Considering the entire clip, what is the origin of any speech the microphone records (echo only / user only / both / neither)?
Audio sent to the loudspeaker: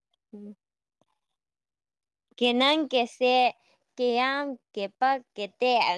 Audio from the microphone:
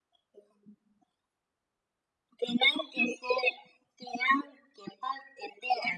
echo only